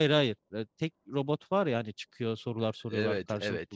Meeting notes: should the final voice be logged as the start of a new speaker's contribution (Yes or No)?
Yes